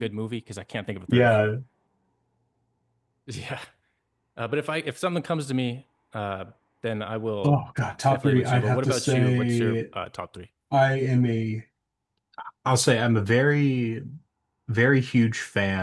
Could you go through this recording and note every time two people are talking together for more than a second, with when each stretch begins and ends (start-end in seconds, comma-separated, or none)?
8.1-9.8